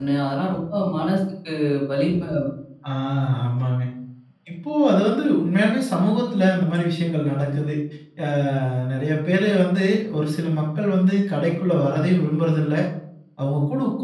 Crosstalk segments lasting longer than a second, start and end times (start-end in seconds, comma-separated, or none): none